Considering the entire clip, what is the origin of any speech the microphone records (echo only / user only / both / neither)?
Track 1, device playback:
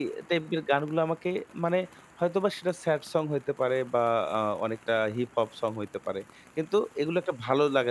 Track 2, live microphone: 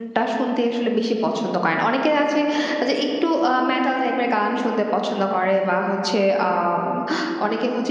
user only